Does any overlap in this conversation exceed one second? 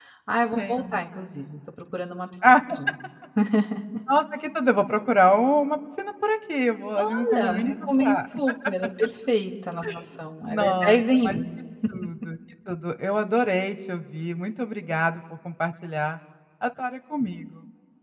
Yes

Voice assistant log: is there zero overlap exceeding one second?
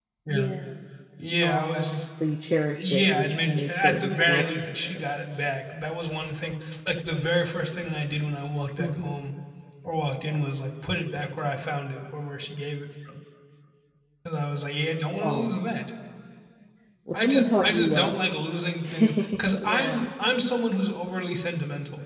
No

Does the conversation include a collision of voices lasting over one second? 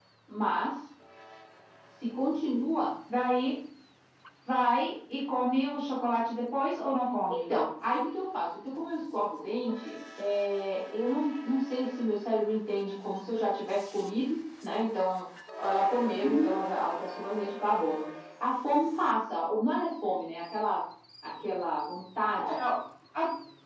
No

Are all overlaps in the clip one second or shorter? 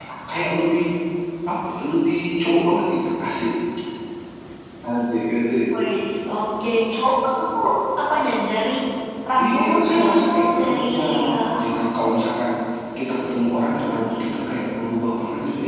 No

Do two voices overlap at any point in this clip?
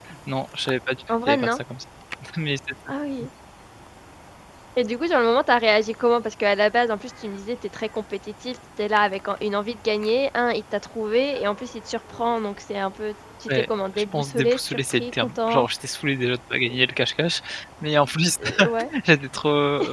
Yes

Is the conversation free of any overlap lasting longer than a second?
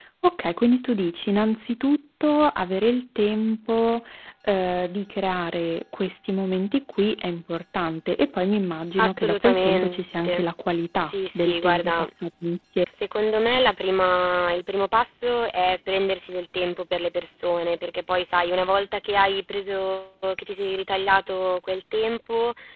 No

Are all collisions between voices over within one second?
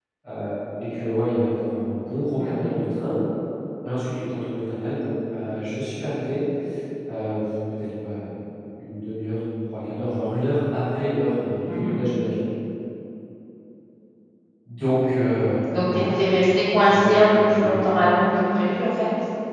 No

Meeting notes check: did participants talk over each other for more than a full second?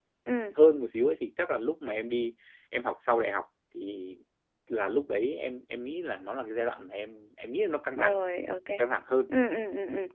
No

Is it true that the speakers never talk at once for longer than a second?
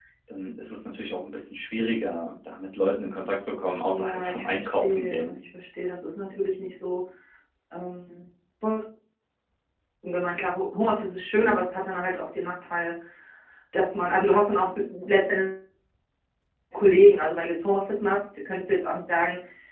No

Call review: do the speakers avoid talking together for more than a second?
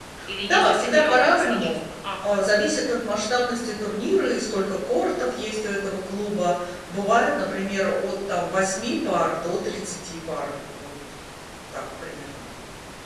No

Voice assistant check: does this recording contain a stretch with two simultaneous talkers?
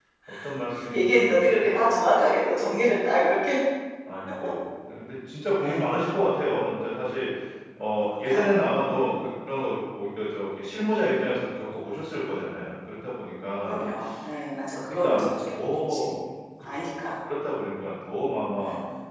Yes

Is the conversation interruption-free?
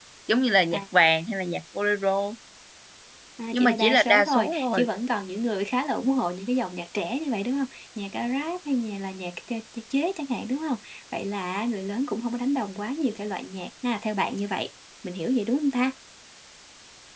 No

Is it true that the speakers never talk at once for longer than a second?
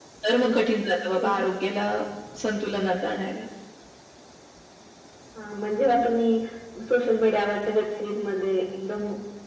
Yes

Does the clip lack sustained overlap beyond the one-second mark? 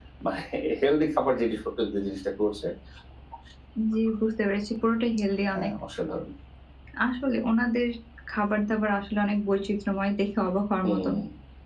Yes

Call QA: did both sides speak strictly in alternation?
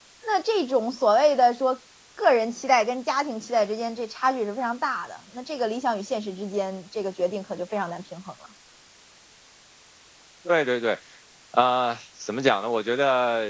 Yes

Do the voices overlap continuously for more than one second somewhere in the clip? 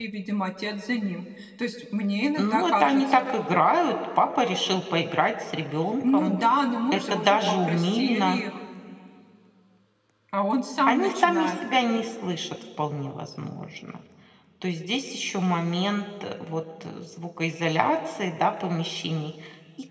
Yes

